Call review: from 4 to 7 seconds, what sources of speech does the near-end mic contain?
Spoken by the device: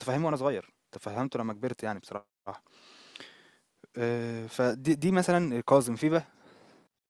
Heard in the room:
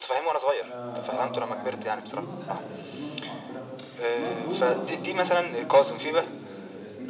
both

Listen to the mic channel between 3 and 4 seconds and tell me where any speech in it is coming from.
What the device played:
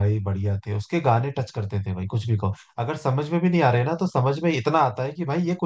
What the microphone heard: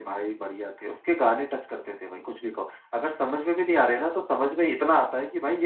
echo only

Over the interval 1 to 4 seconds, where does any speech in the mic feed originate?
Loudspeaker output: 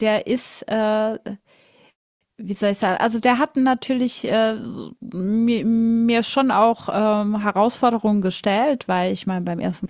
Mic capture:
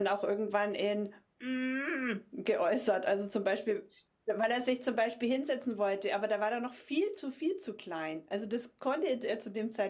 user only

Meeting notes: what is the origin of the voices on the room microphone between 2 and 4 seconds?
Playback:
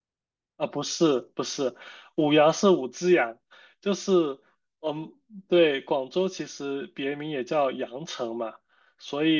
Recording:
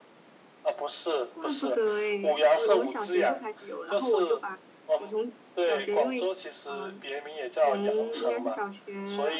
both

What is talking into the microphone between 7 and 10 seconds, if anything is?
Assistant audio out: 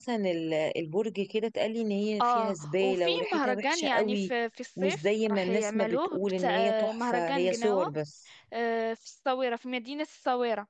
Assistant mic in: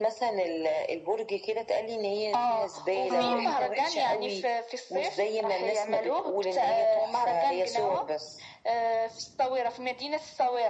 echo only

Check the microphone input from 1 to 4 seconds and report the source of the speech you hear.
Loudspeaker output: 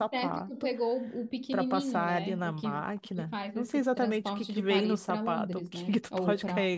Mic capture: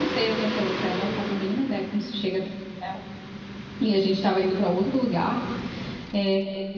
user only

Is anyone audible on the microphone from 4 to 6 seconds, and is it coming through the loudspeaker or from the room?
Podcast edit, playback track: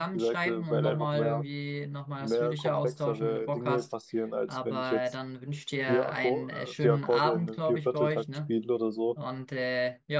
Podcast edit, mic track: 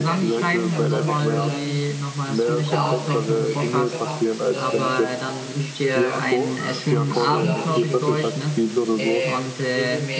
both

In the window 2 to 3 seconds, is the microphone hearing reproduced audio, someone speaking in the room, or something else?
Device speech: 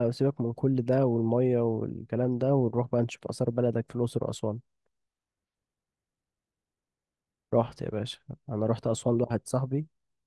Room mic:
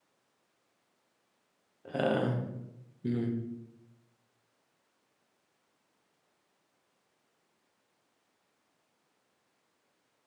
user only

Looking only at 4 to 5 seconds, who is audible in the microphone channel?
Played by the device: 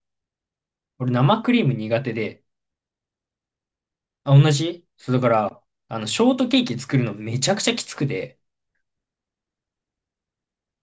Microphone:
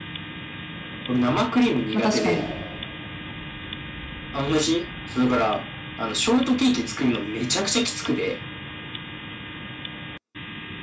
echo only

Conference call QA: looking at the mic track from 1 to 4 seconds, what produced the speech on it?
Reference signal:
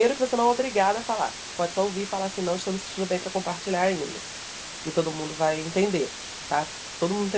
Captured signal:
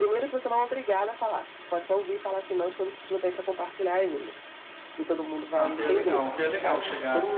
echo only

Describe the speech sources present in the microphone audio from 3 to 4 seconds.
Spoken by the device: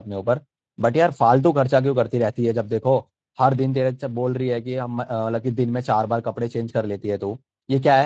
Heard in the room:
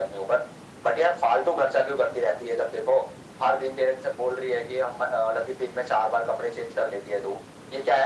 echo only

